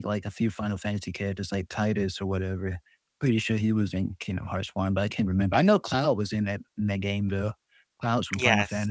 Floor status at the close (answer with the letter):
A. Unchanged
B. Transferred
B